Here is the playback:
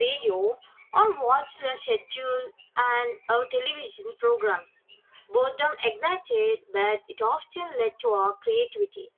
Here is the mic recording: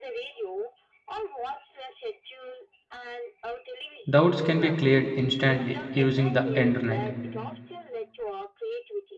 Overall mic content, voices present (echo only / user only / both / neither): both